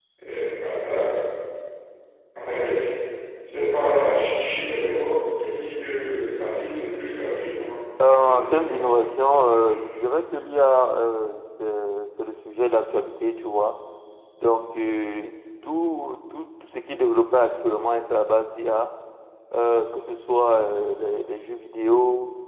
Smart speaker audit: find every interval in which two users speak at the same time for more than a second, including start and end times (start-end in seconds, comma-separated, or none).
8.1-9.9